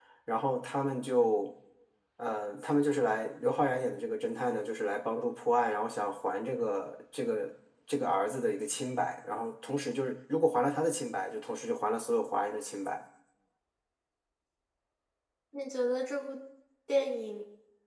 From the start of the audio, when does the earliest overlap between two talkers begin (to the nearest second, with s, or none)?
none